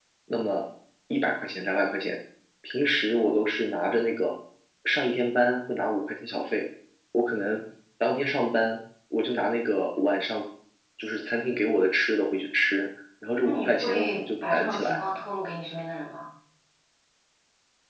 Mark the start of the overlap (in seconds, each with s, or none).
13.4 s